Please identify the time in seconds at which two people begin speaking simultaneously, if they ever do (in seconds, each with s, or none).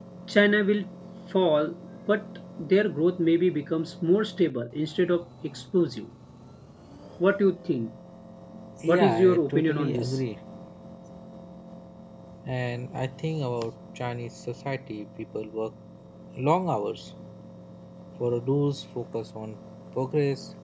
8.9 s